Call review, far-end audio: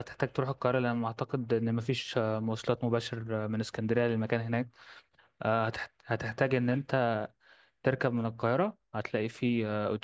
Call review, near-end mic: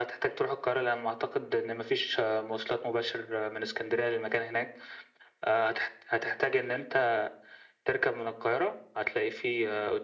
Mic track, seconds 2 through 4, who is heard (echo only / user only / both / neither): echo only